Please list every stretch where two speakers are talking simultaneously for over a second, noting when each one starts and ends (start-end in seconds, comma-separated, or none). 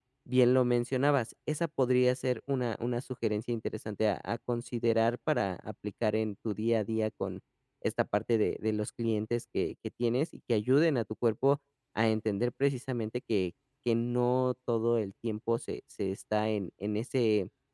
none